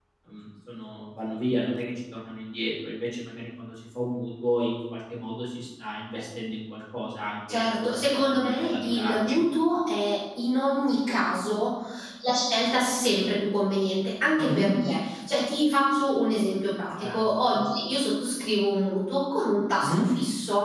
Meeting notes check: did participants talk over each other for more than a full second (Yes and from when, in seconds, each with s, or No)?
Yes, from 7.5 s